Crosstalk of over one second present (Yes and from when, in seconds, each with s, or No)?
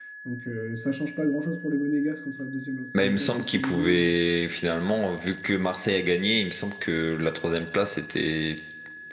Yes, from 2.9 s